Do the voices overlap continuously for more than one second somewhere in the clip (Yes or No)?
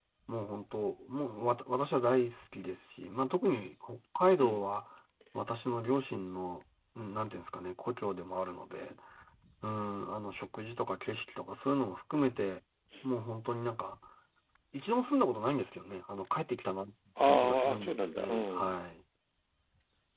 Yes